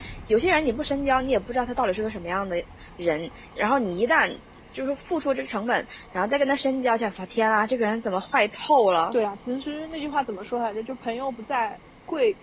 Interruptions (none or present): none